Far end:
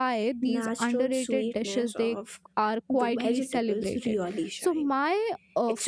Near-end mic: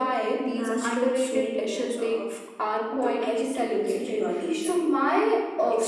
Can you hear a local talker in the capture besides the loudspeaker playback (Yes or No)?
No